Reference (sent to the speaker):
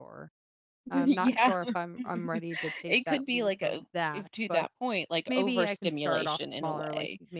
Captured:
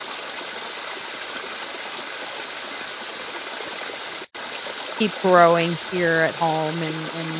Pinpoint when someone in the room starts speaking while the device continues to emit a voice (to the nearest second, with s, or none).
5 s